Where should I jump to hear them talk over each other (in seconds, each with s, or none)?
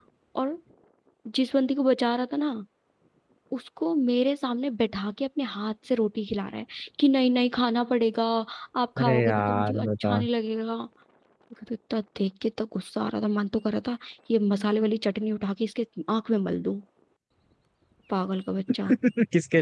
9.0 s